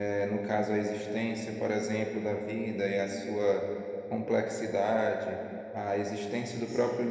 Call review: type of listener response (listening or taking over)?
listening